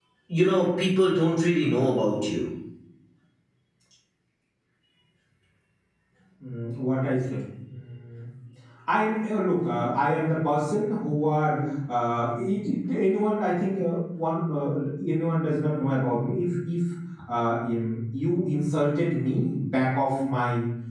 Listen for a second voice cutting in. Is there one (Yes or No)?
No